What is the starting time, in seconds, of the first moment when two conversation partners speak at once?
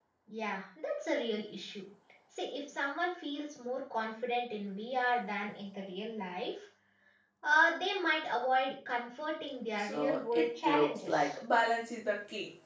9.8 s

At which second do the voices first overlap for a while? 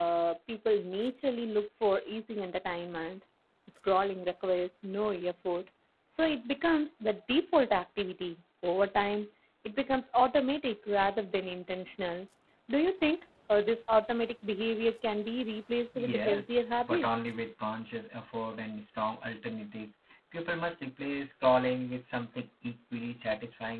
16.0 s

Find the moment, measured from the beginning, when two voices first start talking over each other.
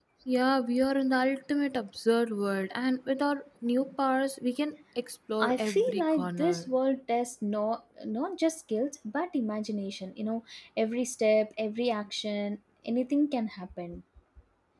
5.4 s

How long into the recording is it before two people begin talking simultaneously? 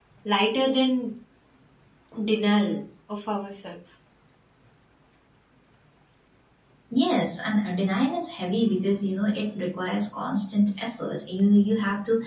none

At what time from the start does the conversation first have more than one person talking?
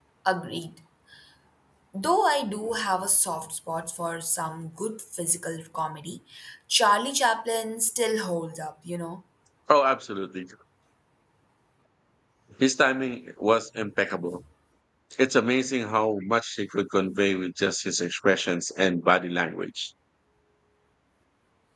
none

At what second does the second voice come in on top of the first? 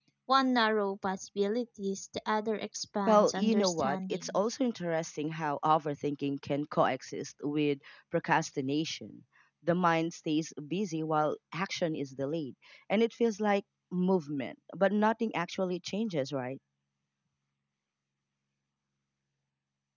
3.1 s

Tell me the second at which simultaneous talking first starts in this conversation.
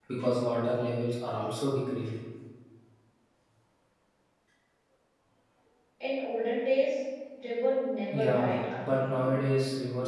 8.1 s

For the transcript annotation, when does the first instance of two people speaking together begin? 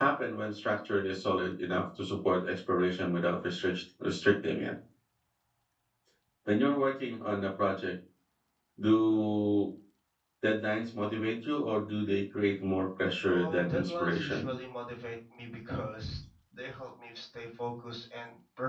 13.2 s

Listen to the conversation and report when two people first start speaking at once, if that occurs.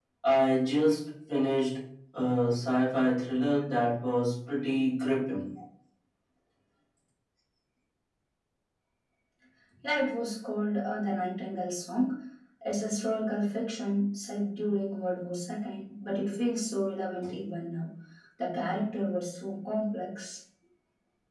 none

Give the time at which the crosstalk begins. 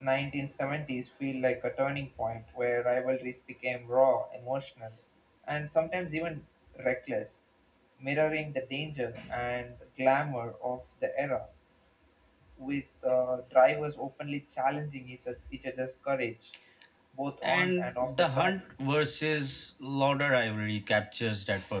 17.4 s

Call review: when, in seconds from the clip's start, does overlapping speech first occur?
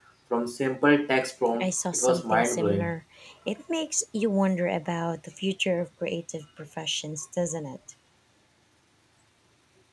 1.5 s

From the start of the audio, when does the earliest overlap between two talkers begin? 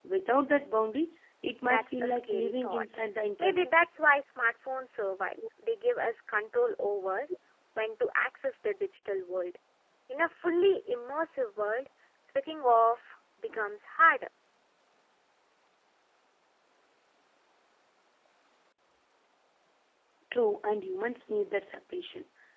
1.6 s

